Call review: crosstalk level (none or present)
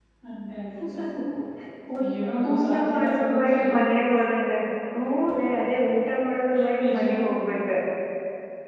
present